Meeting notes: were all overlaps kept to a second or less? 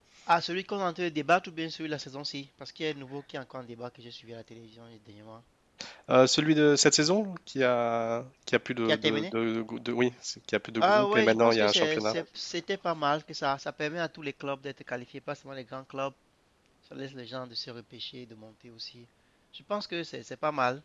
No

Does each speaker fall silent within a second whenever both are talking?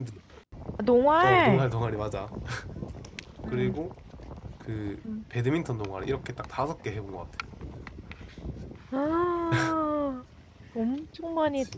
Yes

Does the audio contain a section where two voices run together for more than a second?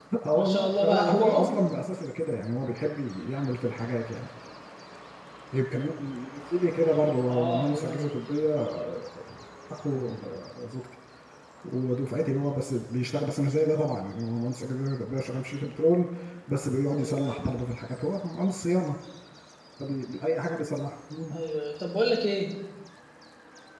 Yes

